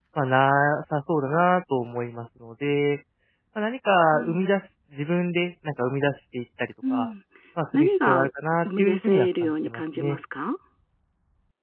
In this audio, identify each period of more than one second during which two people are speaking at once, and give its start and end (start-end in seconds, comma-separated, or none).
8.6-10.2